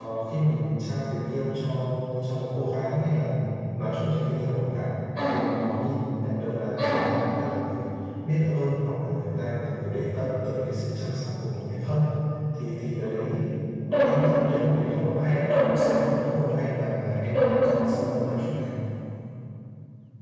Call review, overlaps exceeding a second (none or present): none